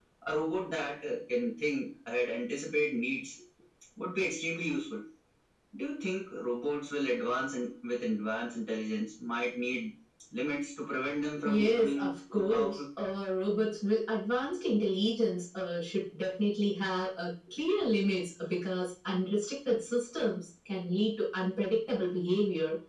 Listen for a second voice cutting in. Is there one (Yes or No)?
Yes